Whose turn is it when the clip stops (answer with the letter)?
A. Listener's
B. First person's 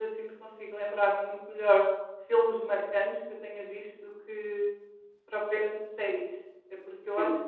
B